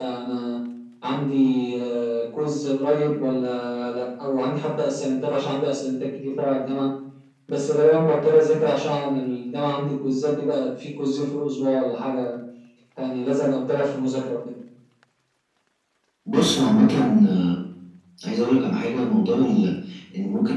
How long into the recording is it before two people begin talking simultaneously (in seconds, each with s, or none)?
none